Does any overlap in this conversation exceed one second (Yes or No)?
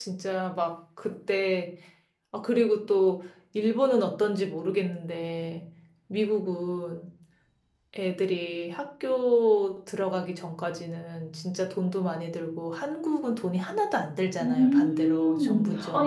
Yes